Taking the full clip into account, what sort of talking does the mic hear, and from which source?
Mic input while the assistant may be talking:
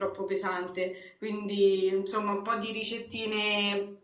user only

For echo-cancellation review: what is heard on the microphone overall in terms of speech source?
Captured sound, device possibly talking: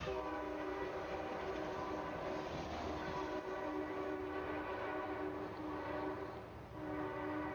neither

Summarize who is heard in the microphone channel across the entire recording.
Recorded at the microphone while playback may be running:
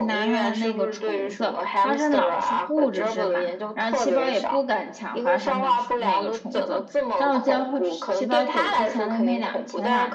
both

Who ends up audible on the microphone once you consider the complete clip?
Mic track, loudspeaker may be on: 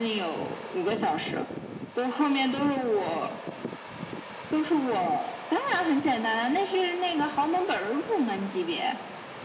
echo only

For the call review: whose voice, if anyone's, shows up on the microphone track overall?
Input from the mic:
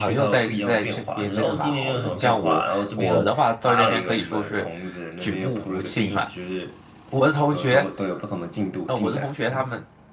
both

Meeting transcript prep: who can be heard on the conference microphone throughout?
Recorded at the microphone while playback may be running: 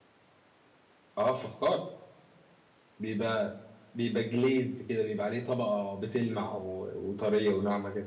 echo only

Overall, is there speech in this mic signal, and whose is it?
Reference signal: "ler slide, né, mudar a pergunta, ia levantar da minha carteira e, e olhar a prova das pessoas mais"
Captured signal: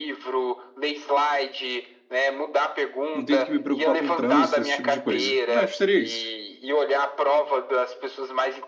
both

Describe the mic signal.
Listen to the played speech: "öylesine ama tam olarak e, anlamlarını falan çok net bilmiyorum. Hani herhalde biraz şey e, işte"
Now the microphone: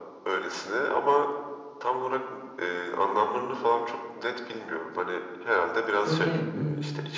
both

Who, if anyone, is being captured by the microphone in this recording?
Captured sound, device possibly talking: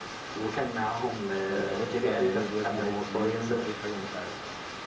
both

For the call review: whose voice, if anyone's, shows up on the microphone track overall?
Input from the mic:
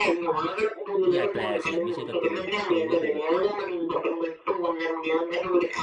both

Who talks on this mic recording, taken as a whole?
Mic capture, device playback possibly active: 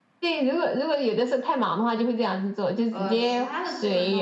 both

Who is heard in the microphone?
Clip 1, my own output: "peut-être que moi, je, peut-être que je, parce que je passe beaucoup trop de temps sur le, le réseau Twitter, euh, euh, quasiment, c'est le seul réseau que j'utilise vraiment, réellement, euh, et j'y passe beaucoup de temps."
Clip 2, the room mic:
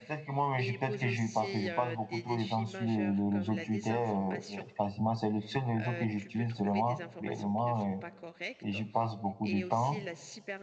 both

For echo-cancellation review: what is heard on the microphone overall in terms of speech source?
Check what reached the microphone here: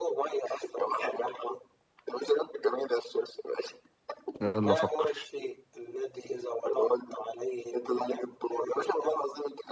both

